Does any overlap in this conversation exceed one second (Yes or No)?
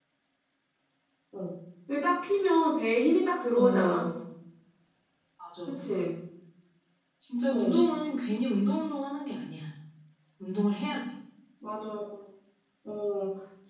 No